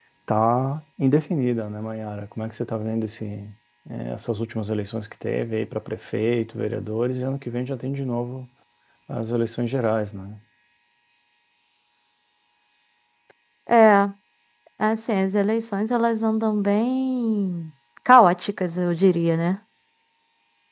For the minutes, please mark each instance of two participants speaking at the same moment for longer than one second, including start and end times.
none

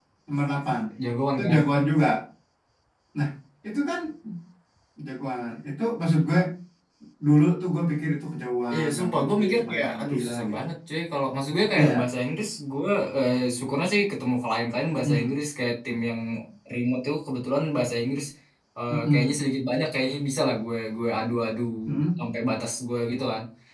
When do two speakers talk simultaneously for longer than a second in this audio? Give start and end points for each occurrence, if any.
8.7-10.6

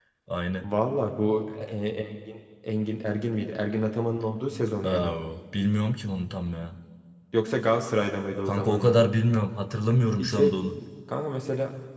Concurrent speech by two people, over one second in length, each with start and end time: none

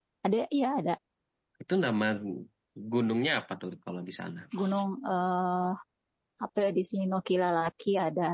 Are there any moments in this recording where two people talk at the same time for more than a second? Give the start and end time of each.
none

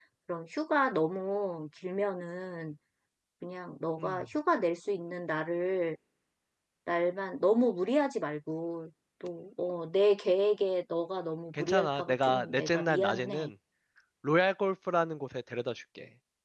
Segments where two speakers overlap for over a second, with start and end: 11.6-13.5

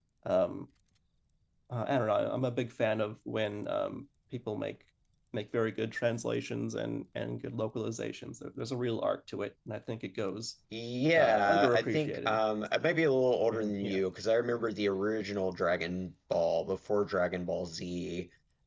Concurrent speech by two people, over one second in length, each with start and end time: 11.2-12.4

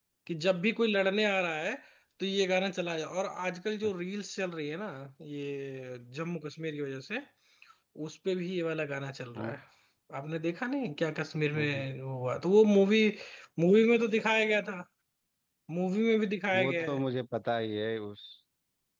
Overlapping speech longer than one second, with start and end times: none

